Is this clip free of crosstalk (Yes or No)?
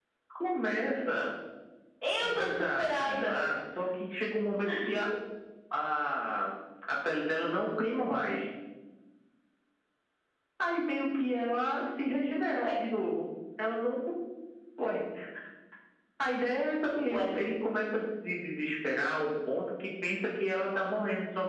No